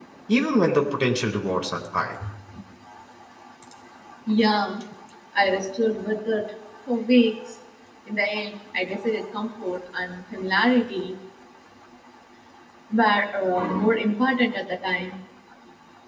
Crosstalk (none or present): none